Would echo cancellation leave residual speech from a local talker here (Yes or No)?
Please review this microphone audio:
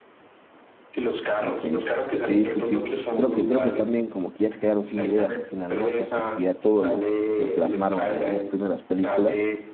Yes